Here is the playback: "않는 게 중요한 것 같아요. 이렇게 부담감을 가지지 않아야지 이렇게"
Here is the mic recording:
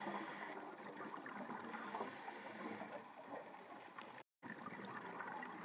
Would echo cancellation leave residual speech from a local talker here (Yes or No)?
No